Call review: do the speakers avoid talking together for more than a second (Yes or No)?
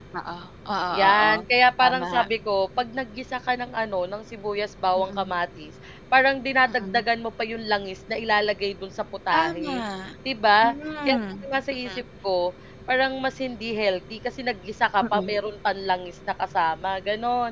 Yes